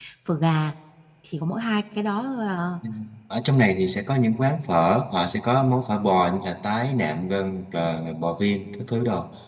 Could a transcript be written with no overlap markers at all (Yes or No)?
Yes